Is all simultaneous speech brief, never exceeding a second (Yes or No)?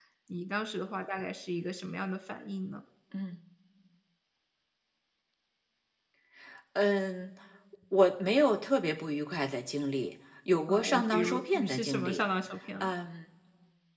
No